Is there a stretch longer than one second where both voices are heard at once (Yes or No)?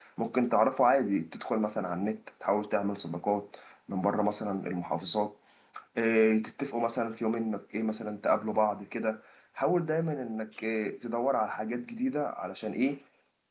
No